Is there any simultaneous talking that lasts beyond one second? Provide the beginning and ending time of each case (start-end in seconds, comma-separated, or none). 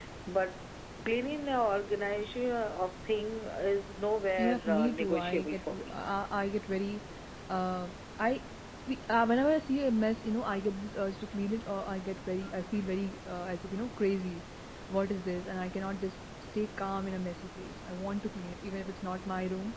4.4-6.0